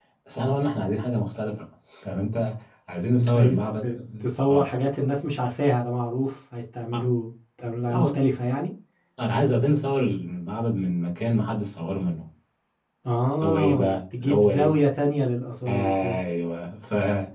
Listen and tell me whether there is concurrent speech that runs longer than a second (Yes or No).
Yes